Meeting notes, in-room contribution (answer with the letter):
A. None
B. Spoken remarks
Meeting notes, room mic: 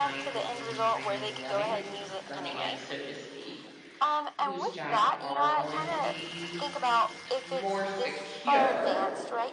B